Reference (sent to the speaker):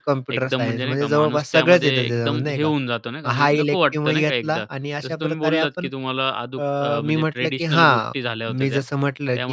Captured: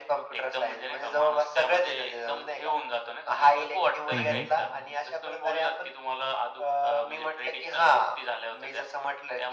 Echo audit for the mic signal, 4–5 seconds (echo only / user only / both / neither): both